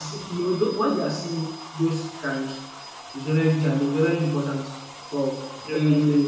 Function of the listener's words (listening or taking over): listening